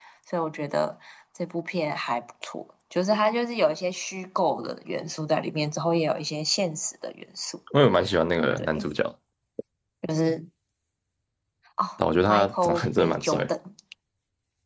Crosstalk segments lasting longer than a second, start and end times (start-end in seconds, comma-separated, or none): 12.2-13.5